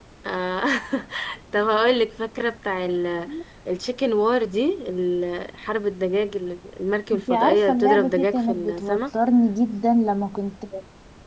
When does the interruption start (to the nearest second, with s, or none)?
7 s